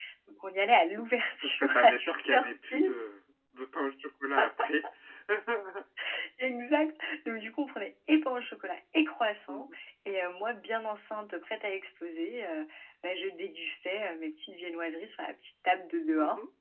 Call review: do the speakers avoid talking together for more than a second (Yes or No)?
No